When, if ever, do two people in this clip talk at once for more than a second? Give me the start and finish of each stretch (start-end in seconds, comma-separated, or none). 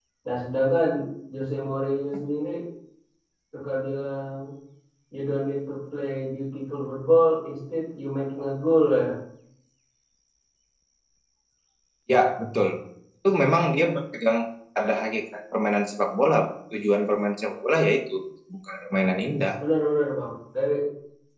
none